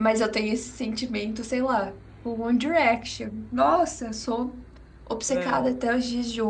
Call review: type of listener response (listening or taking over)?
listening